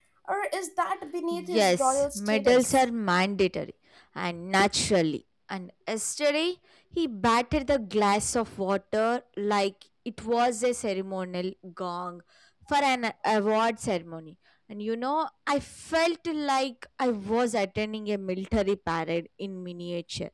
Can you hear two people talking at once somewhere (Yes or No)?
Yes